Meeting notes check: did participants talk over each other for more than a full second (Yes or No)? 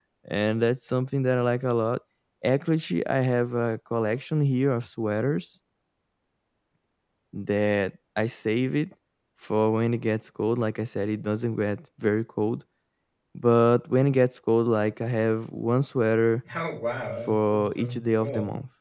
Yes